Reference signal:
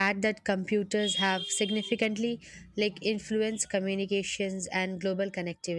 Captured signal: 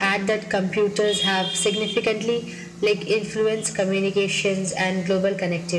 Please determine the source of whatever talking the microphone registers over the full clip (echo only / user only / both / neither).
echo only